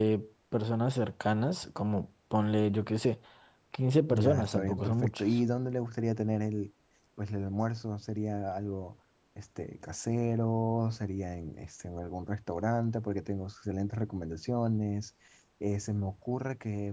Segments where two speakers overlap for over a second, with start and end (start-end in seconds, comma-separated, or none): 4.1-5.4